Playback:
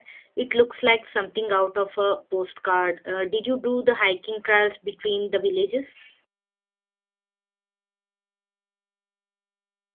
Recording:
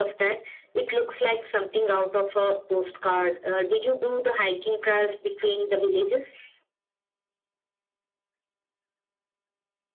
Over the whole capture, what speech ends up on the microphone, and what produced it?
echo only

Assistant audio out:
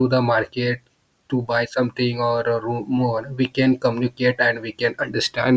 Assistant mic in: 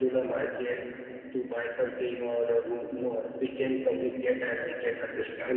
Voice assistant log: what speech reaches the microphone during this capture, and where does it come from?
echo only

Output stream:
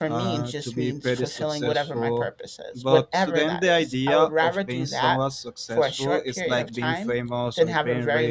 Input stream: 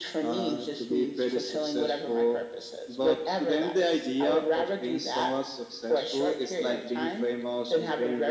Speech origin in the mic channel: echo only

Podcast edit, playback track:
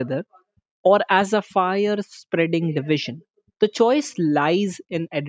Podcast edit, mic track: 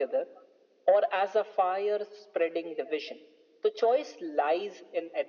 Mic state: echo only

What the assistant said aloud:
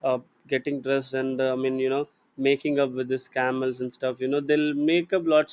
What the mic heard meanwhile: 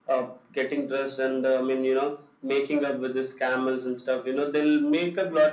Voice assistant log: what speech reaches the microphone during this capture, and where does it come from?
echo only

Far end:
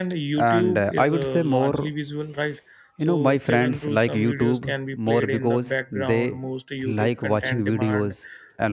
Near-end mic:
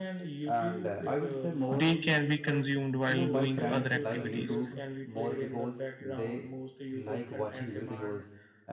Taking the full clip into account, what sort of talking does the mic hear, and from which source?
both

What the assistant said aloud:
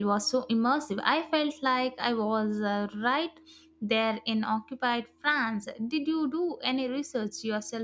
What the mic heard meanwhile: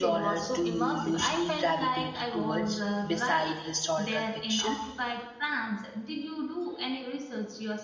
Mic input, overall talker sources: both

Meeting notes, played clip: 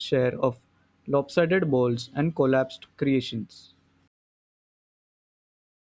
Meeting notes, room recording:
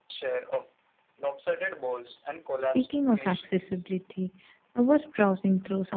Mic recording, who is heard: both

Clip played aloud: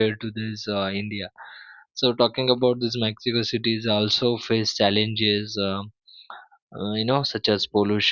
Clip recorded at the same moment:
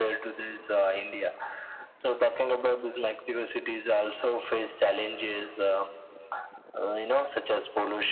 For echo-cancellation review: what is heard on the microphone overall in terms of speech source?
echo only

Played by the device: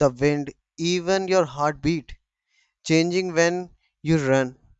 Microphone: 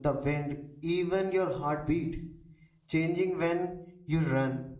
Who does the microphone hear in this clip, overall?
echo only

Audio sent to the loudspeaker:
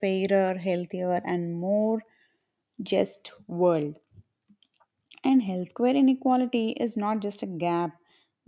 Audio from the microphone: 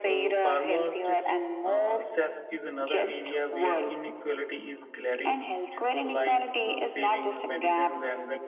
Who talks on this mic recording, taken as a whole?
both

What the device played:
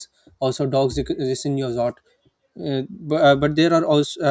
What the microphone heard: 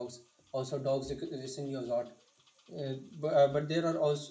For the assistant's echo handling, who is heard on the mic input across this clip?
echo only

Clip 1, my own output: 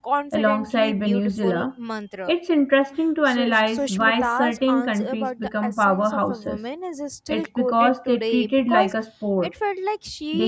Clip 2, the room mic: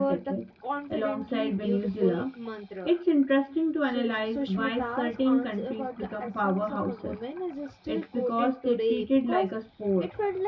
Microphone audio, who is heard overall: echo only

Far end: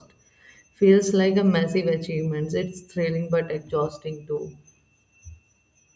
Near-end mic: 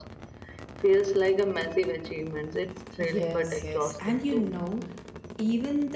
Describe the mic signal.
both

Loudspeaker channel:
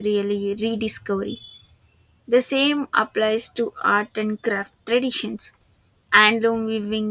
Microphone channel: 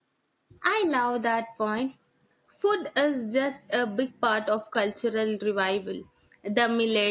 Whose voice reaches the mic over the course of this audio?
user only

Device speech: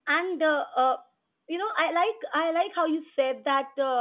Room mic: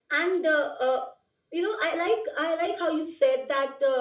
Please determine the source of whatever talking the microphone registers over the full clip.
echo only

